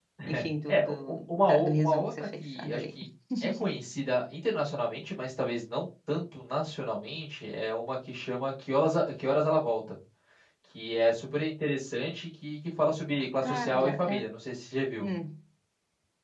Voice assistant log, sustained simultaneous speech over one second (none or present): present